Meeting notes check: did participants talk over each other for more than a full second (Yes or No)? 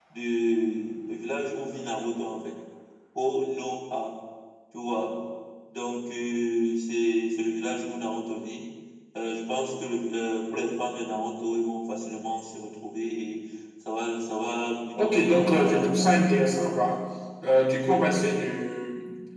Yes